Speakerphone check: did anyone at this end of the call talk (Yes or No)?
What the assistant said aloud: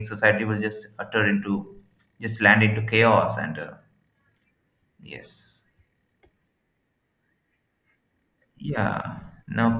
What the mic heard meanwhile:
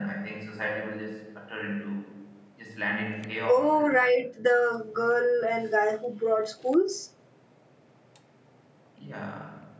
Yes